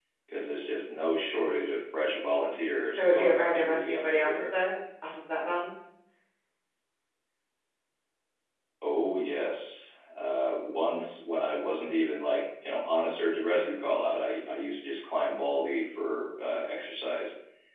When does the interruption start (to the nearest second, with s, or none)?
3 s